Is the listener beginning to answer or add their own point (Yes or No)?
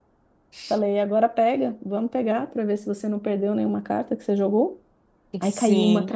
No